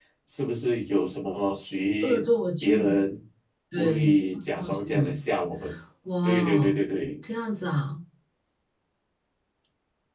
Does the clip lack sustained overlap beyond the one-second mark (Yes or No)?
No